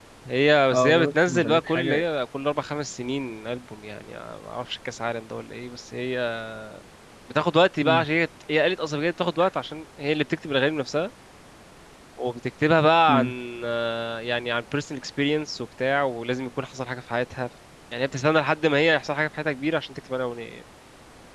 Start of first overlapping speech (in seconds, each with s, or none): 0.7 s